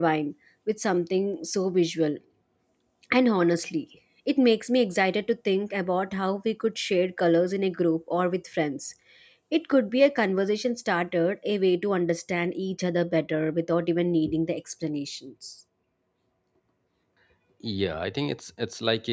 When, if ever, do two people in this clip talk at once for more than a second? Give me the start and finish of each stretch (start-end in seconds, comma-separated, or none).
none